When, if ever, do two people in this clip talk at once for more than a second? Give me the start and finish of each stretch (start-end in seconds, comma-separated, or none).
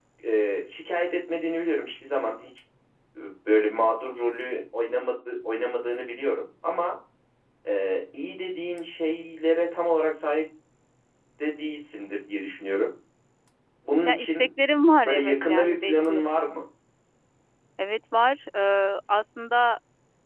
15.1-16.5